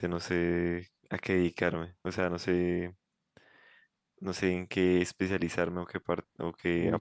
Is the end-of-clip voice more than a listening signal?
Yes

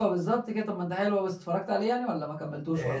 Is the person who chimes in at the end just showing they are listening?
No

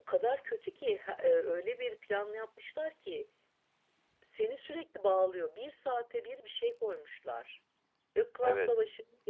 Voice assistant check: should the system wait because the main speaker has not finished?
Yes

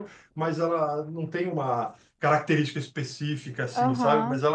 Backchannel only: No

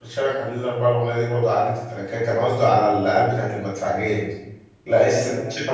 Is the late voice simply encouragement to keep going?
Yes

